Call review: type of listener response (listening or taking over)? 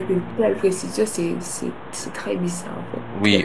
taking over